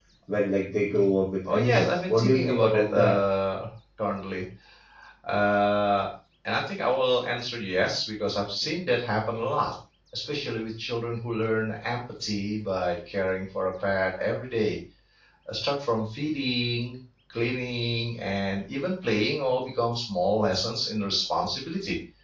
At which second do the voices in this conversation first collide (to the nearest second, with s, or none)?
1 s